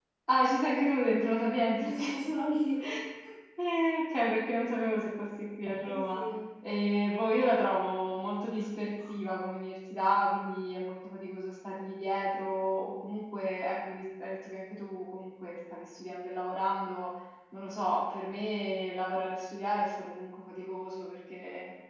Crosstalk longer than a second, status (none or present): none